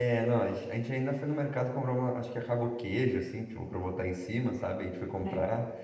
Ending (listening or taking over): listening